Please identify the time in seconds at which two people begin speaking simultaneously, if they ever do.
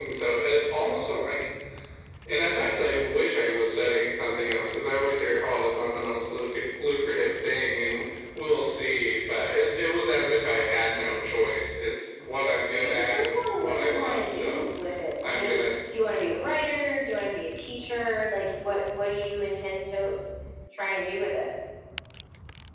12.8 s

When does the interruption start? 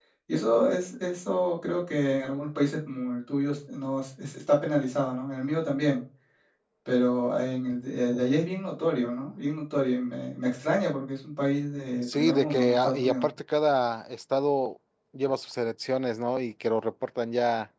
12.0 s

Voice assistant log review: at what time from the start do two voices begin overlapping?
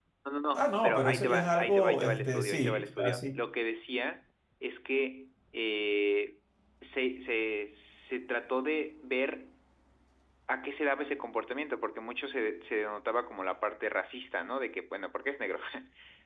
0.5 s

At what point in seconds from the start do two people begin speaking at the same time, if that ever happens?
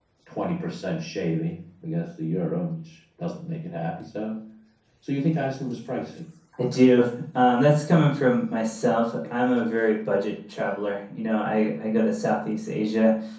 none

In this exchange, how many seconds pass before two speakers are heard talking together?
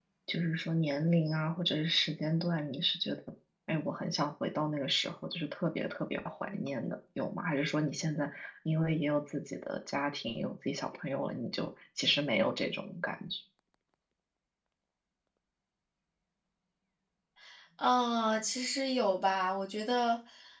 none

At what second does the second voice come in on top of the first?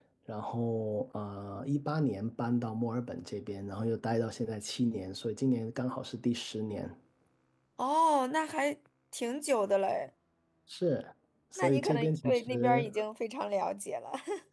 11.6 s

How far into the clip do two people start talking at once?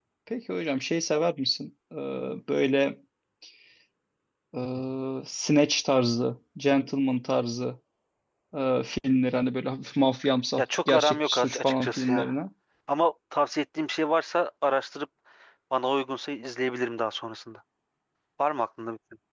10.6 s

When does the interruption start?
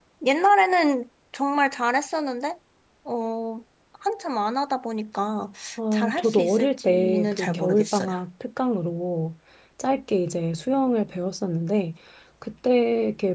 5.9 s

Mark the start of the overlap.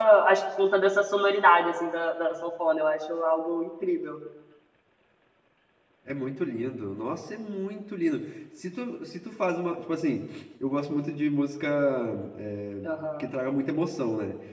none

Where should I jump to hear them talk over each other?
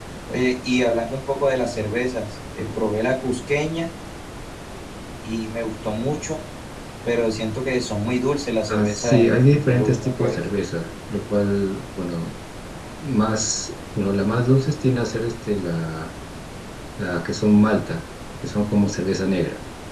8.7 s

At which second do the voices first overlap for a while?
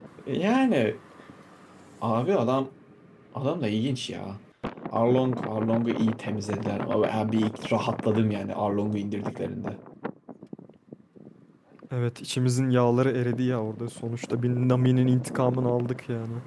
none

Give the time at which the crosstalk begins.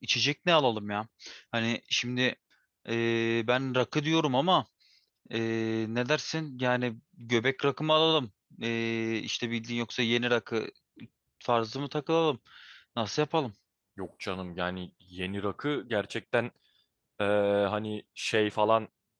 none

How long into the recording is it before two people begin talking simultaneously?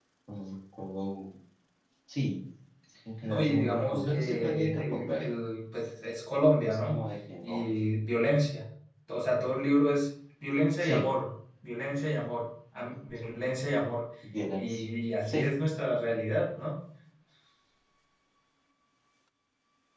3.2 s

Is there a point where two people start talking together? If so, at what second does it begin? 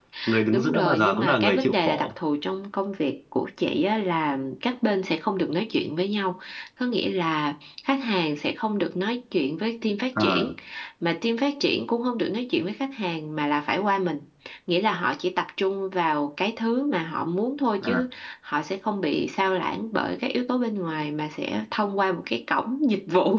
0.5 s

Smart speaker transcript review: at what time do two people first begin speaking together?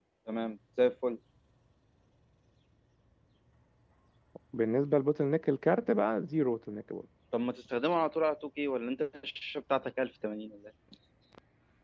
none

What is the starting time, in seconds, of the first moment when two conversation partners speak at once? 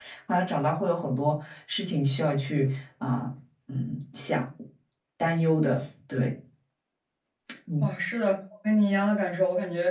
none

